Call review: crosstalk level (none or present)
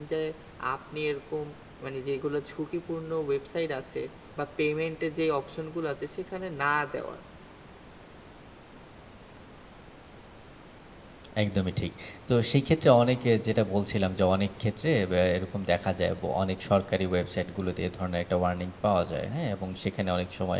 none